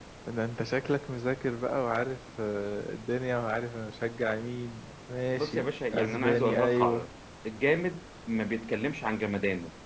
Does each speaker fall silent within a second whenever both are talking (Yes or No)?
No